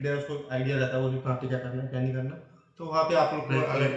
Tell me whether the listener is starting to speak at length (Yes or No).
No